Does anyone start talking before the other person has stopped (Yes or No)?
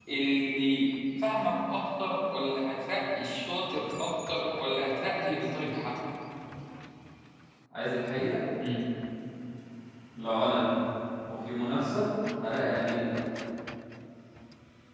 No